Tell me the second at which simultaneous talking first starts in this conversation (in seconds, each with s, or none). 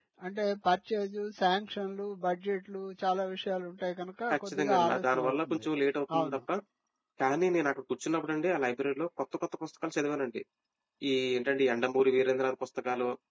4.3 s